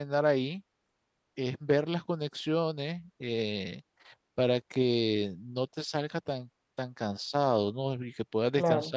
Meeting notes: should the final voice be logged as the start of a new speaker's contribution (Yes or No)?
No